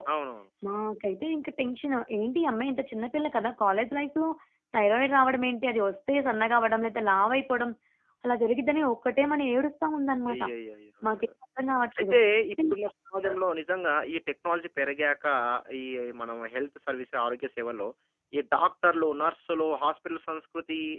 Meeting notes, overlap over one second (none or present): none